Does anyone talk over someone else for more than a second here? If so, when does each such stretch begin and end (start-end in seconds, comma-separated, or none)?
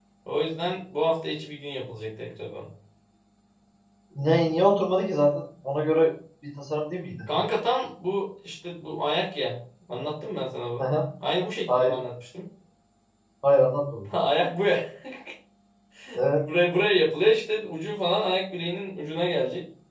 none